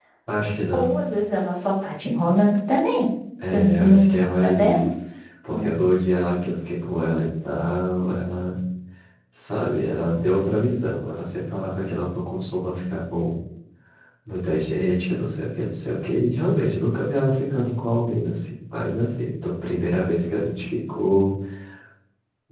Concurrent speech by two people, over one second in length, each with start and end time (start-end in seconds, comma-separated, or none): 3.5-4.9